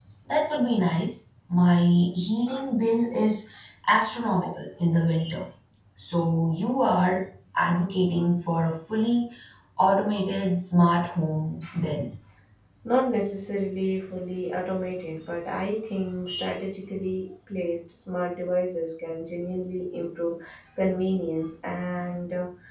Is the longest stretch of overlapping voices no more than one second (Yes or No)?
Yes